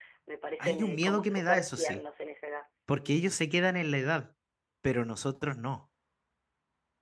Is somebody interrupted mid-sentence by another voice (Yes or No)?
Yes